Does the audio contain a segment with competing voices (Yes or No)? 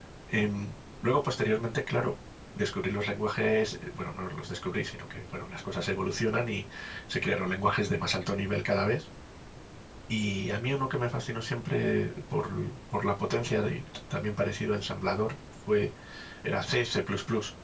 No